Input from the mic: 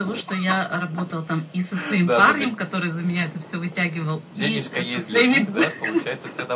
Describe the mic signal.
echo only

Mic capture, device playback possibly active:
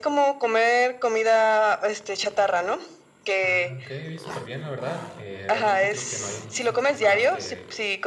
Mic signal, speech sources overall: both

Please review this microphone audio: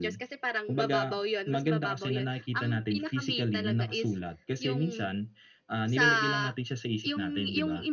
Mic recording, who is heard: echo only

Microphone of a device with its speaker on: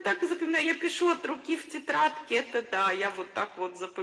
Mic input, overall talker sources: echo only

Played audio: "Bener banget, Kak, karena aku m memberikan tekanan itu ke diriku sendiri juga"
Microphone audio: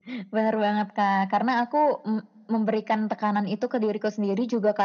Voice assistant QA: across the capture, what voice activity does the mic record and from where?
echo only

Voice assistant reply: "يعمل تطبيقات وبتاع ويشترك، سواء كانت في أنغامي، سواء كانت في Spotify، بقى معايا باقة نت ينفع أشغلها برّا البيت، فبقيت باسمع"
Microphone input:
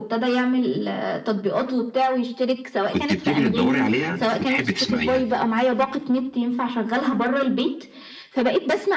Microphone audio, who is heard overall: both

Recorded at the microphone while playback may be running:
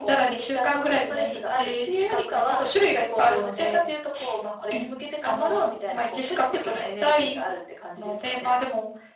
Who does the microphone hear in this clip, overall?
echo only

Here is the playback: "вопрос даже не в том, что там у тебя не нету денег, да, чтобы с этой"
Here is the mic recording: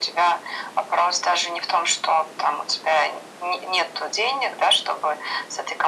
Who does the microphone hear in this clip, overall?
echo only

